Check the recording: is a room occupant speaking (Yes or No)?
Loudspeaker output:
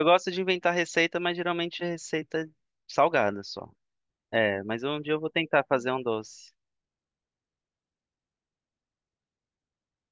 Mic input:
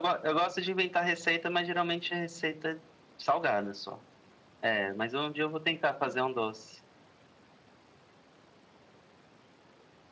No